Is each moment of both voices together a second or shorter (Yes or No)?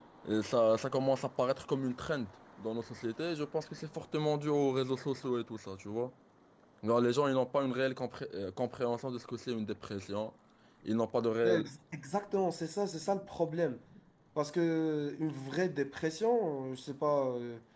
Yes